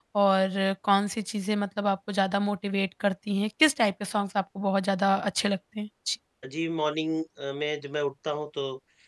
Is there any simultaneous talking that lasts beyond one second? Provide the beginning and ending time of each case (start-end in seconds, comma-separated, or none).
none